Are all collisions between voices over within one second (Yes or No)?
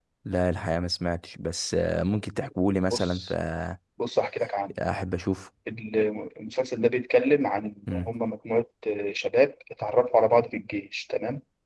Yes